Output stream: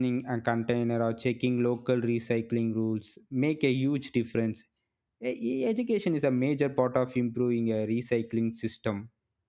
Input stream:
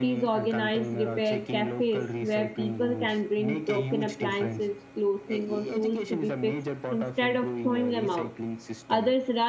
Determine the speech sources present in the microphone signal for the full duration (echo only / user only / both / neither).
both